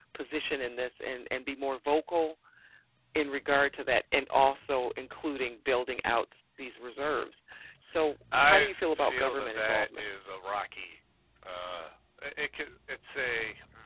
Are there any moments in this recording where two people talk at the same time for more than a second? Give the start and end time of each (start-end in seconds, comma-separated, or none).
8.4-10.0